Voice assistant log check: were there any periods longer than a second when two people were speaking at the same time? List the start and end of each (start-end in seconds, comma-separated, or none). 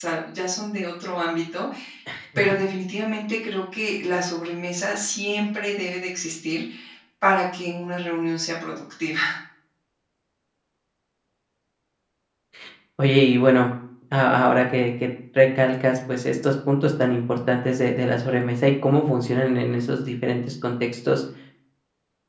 none